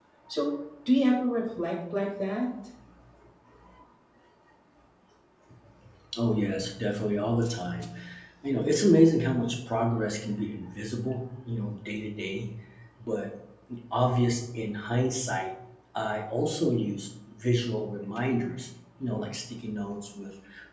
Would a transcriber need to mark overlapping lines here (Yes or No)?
No